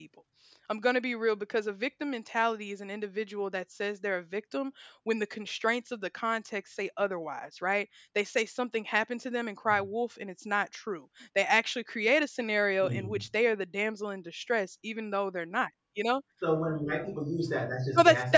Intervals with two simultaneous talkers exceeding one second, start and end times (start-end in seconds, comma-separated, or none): none